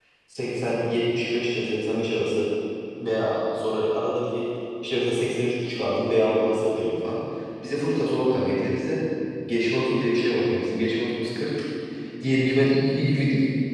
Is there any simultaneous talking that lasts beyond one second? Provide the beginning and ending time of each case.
none

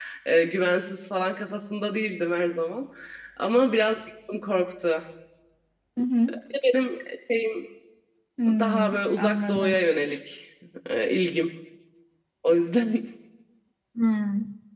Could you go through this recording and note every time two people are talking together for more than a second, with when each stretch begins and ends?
8.5-9.8

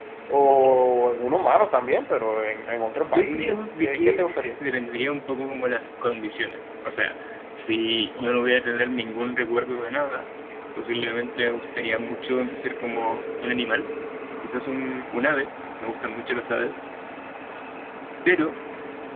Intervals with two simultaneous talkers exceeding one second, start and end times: 3.0-4.5

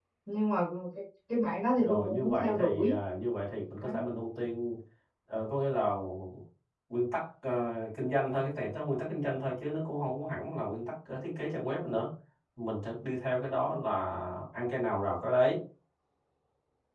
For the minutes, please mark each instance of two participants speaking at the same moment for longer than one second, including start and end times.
1.8-3.0

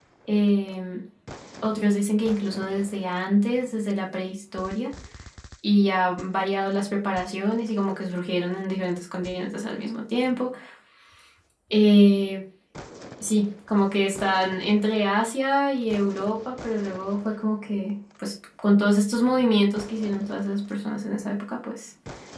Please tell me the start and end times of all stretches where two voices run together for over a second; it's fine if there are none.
none

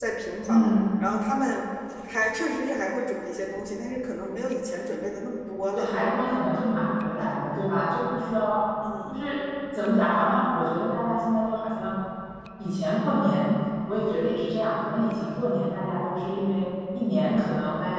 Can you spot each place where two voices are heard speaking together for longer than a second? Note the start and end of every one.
none

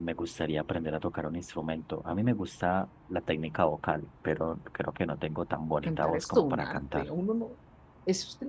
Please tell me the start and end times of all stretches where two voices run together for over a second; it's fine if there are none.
5.8-7.1

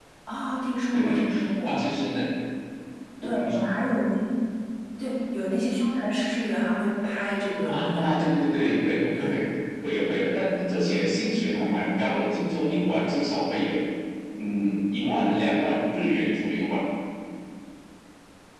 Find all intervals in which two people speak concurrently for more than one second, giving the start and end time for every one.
none

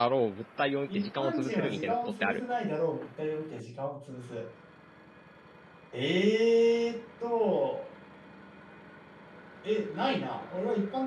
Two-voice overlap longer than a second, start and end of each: 0.9-2.4

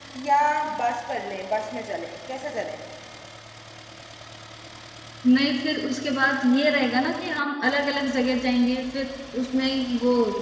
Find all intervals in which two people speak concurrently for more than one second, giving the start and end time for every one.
none

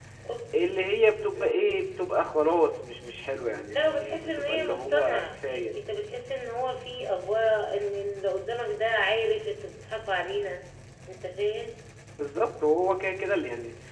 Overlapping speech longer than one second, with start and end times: 3.7-5.8

